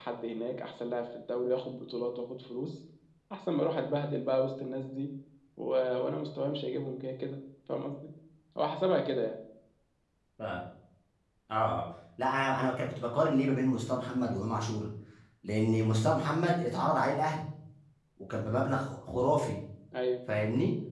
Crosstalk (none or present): none